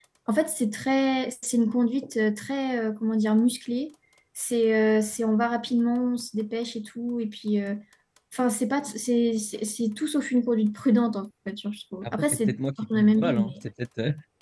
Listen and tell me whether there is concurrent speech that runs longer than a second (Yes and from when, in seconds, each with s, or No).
Yes, from 12.0 s